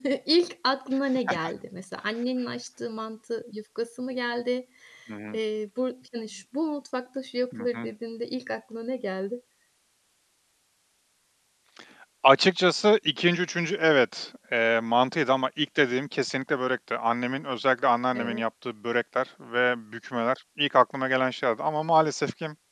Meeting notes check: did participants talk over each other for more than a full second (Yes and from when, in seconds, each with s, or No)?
No